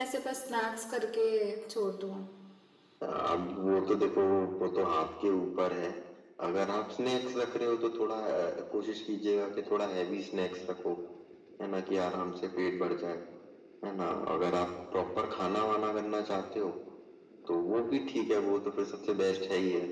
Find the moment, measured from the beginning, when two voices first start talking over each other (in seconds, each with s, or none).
none